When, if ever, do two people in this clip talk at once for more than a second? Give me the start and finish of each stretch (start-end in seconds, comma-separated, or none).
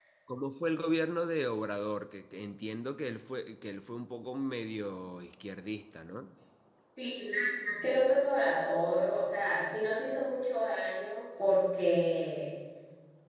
none